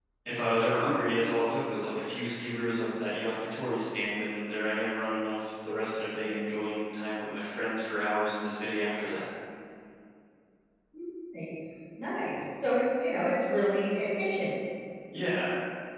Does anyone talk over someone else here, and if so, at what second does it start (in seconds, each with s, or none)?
none